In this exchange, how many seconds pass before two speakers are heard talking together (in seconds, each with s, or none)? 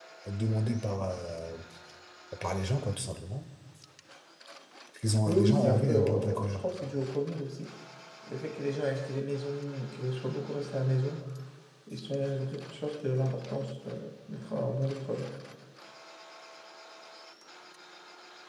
5.3 s